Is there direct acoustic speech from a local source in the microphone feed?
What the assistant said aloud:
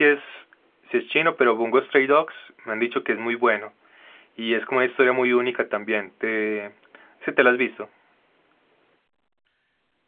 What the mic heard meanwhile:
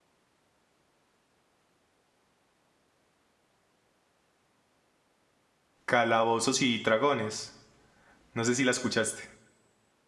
Yes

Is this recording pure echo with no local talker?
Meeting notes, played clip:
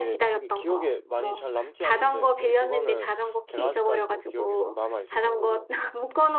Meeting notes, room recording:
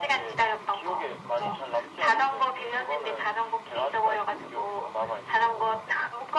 Yes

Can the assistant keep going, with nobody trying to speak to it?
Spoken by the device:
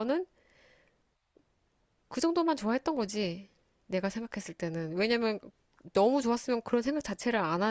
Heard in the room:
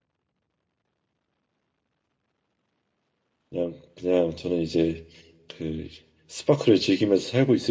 No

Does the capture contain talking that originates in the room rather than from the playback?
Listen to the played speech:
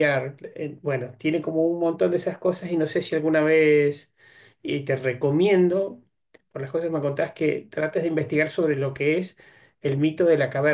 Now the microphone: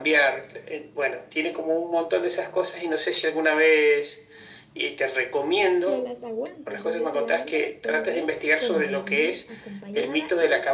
Yes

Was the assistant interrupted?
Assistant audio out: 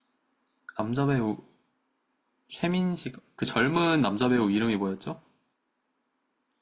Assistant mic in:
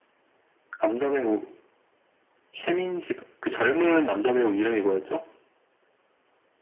No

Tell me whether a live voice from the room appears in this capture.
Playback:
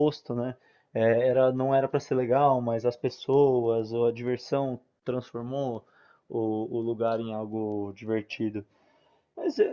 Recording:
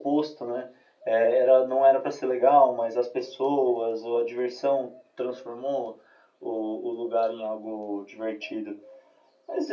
No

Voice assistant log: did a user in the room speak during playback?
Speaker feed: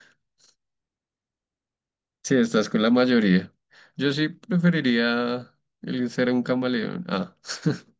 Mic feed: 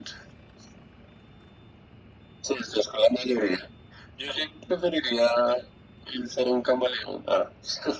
No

